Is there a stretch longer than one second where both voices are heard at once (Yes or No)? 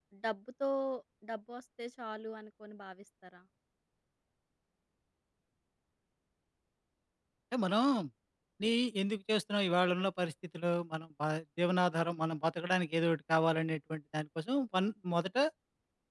No